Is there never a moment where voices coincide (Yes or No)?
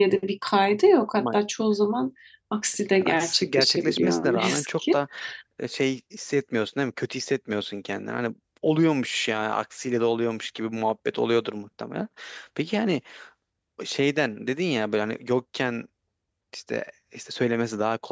No